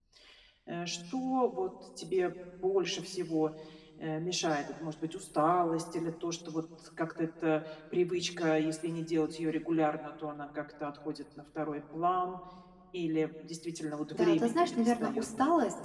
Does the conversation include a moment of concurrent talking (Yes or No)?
Yes